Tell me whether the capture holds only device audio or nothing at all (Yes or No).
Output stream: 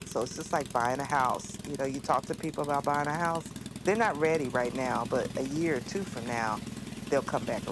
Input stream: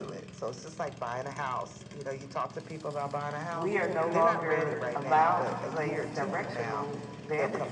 No